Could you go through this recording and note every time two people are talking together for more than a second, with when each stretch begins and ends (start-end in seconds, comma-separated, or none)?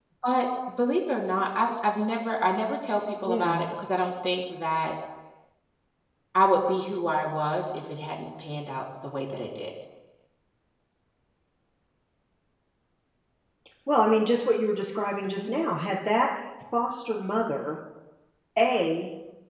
none